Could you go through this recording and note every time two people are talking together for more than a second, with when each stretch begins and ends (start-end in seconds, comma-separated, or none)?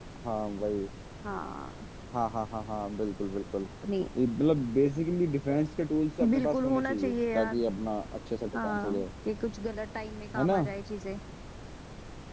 6.3-7.6